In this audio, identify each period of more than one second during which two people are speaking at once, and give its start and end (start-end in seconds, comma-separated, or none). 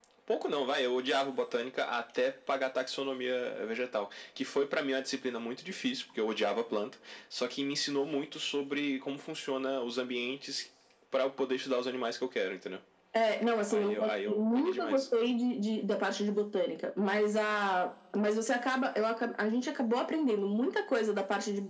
13.7-15.0